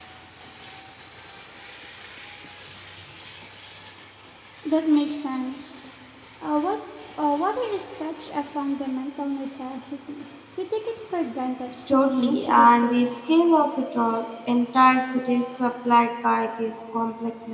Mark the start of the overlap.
12 s

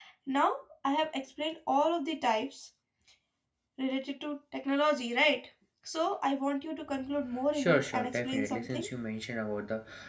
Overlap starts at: 8 s

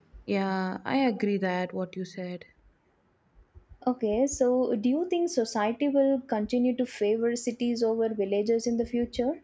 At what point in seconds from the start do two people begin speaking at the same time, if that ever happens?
none

